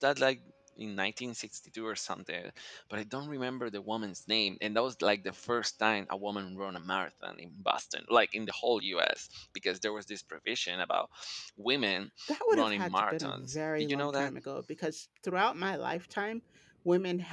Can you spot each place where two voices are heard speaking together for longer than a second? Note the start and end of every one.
12.5-14.3

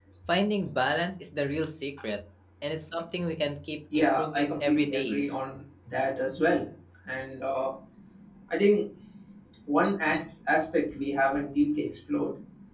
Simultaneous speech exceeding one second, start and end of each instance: 4.0-5.2

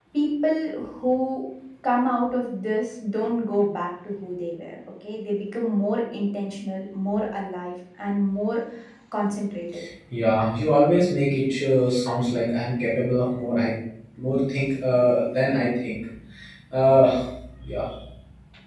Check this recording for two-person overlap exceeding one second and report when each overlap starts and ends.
none

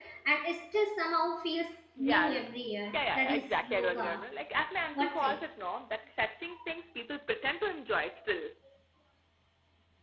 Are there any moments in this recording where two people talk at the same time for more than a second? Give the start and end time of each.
2.9-4.2

